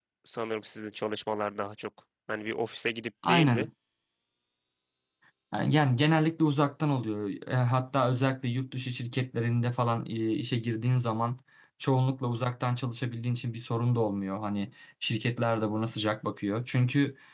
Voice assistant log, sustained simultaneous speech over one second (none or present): none